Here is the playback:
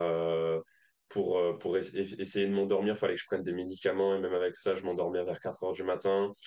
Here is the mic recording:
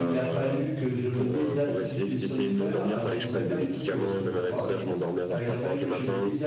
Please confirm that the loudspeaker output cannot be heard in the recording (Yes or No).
No